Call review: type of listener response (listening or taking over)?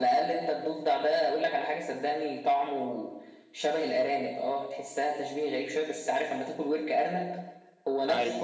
listening